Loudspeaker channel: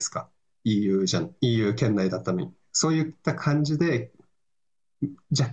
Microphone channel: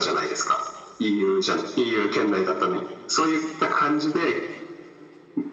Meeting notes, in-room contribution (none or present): none